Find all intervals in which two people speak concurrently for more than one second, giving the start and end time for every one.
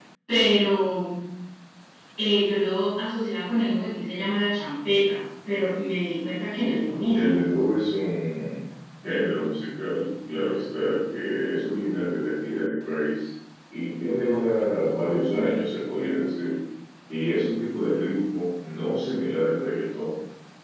none

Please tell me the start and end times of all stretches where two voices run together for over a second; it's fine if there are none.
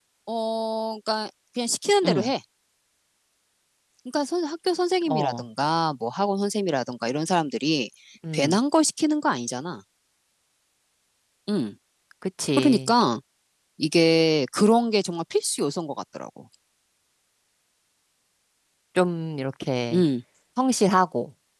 none

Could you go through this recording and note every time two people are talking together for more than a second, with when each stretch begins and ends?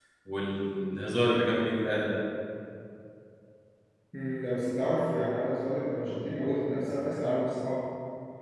none

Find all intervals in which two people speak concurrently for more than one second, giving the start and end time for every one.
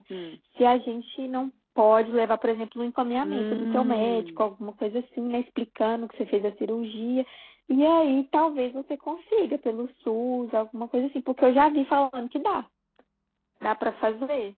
3.2-4.5

